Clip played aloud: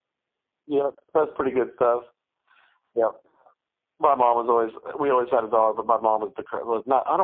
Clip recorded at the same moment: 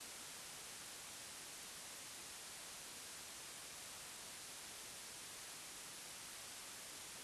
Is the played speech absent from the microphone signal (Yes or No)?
Yes